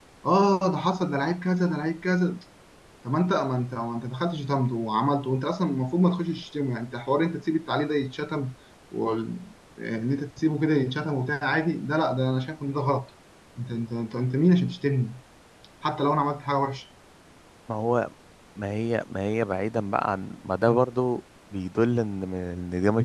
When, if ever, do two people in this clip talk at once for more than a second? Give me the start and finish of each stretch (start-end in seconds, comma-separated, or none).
none